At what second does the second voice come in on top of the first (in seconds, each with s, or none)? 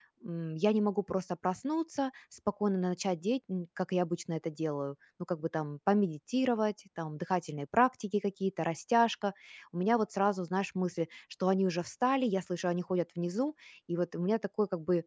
none